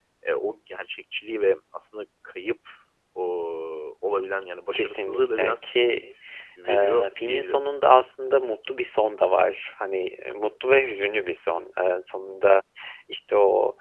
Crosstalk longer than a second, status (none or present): present